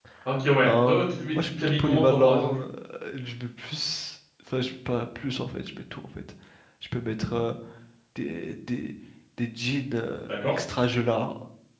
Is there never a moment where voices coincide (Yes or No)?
No